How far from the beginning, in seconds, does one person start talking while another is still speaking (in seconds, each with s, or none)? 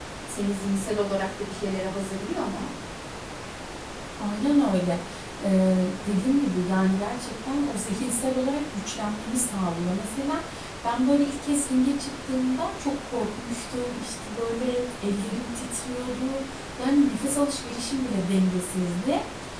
none